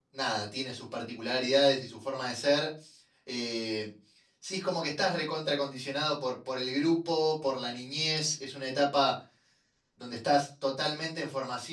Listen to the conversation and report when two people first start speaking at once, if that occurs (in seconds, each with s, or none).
none